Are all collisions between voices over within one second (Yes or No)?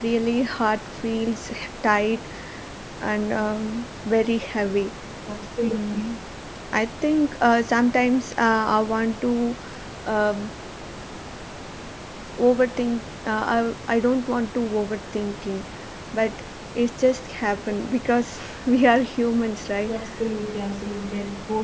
Yes